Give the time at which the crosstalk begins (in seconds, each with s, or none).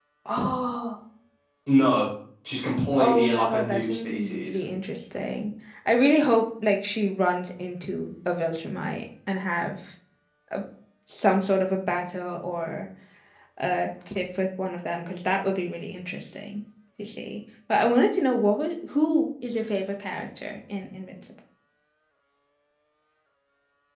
3.0 s